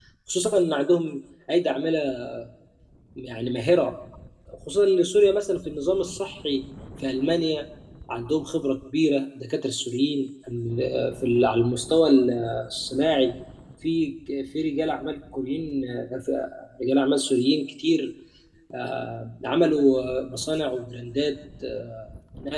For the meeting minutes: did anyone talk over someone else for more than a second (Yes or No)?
No